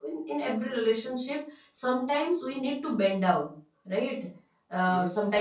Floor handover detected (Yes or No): No